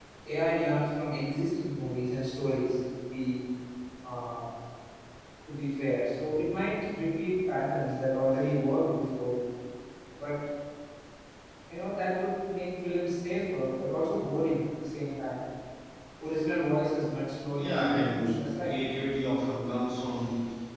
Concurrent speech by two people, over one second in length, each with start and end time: 17.5-18.8

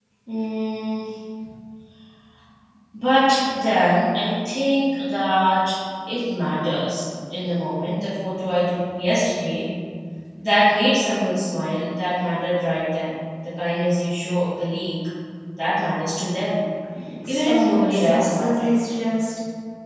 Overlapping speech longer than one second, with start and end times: 17.3-18.7

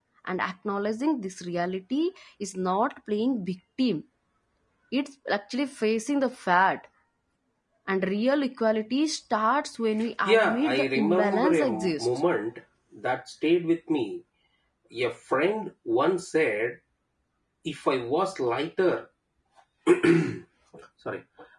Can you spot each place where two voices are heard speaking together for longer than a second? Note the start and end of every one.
10.2-12.1

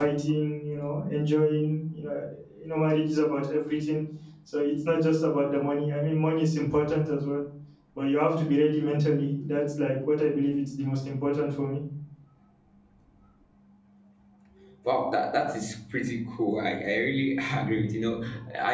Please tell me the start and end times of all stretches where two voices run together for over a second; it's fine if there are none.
none

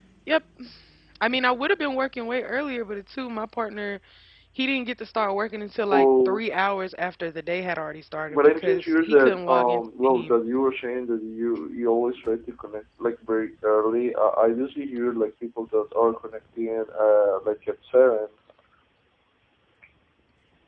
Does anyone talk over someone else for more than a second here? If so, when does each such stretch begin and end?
8.3-10.3

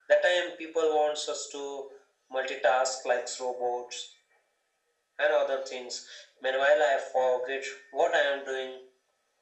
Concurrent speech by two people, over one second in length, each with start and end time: none

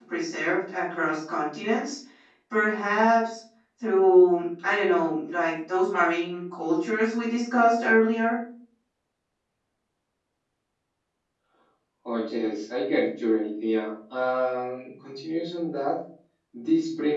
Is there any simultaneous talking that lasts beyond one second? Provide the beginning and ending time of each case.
none

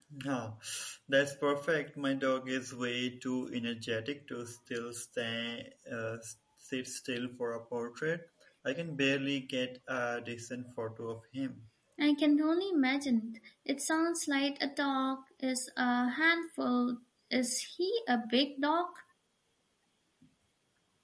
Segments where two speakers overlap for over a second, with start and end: none

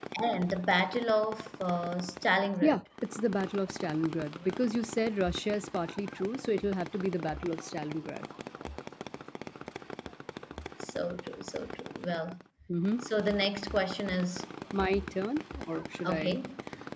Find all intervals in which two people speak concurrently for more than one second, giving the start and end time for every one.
none

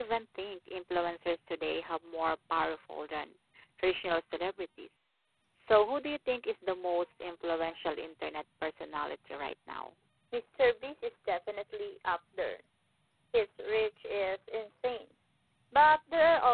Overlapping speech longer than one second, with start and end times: none

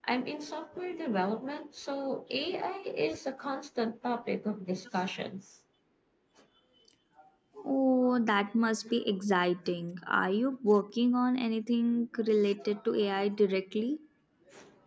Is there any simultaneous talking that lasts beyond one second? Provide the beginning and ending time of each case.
none

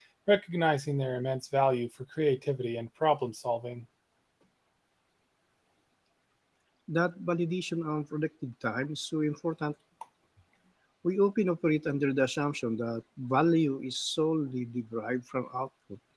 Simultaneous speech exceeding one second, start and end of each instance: none

